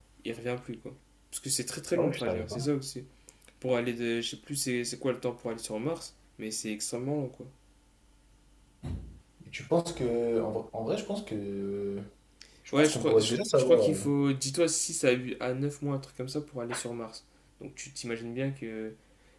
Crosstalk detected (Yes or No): Yes